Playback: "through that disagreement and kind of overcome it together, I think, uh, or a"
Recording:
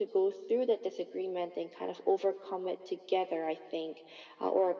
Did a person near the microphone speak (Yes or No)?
No